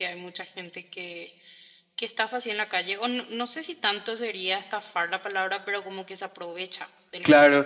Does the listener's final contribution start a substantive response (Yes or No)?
Yes